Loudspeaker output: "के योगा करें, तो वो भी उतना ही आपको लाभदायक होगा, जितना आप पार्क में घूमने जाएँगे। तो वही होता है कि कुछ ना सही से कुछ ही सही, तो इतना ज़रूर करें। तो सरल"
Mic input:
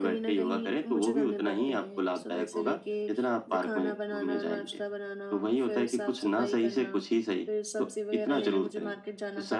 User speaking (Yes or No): Yes